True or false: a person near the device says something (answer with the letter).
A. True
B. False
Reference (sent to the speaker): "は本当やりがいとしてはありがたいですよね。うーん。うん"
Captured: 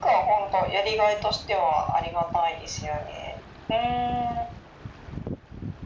B